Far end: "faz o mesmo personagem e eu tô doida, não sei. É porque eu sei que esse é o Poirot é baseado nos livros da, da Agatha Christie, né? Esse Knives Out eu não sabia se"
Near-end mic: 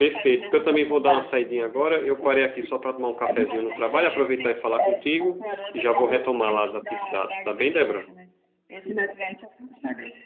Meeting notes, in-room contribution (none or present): present